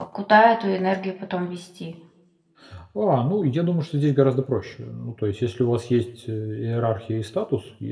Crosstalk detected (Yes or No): No